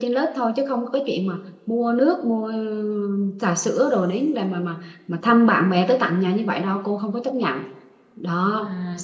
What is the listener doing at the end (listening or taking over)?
taking over